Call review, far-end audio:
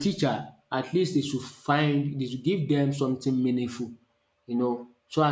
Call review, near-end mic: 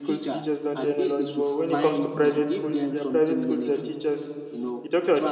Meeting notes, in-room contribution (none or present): present